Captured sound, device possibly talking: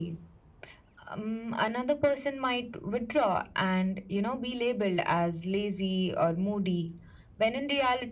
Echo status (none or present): present